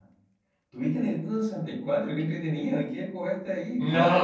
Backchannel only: No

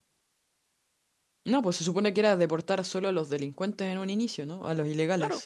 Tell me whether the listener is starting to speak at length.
Yes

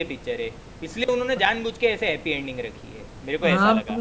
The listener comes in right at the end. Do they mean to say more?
Yes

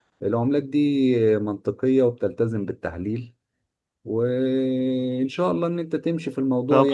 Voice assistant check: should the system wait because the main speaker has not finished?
No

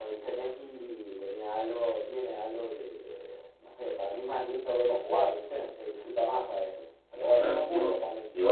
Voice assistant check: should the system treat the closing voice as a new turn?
Yes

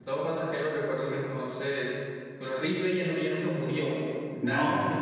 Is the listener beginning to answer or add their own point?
No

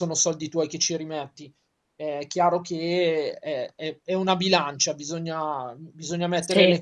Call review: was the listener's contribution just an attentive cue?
Yes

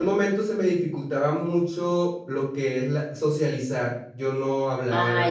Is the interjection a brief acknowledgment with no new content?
No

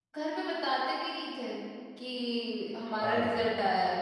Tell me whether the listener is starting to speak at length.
No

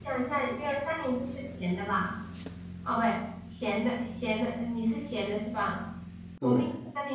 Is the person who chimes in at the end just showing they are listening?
Yes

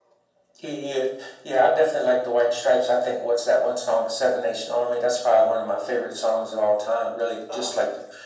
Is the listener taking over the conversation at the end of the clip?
No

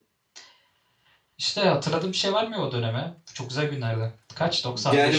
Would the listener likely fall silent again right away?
No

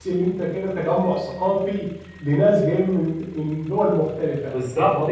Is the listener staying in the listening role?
No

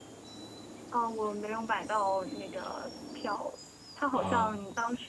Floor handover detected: No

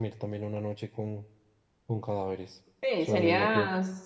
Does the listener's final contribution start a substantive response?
Yes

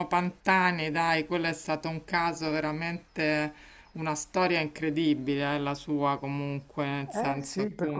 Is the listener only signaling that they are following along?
No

